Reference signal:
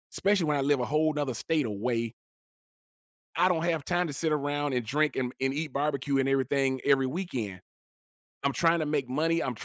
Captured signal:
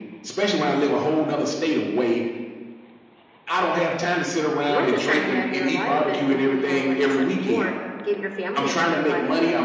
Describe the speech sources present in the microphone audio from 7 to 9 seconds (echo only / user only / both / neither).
both